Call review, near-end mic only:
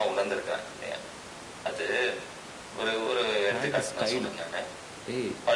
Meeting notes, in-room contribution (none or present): present